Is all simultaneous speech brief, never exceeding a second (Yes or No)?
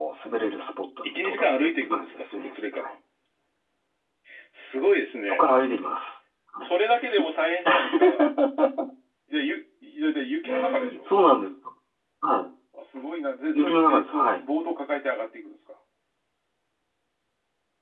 No